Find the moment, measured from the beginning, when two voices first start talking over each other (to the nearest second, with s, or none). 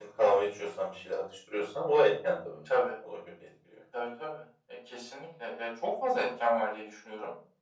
none